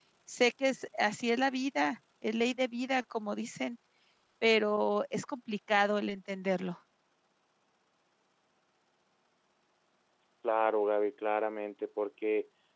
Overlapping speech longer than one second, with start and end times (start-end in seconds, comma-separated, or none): none